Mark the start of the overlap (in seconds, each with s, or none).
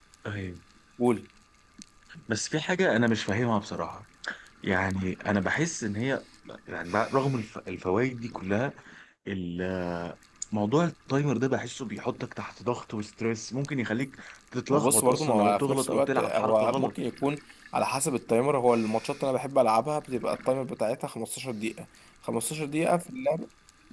14.7 s